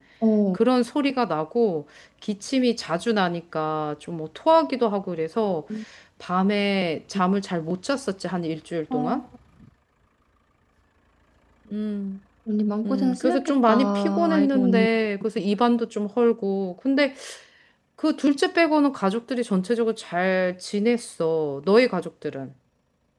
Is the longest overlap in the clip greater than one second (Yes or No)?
Yes